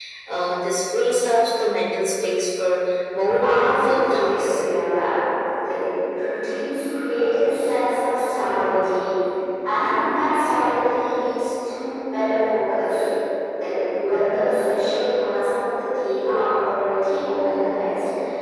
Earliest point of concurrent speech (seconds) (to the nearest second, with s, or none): 3 s